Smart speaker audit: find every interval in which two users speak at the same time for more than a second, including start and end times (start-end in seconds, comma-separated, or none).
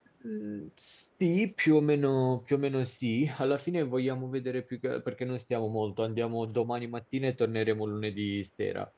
none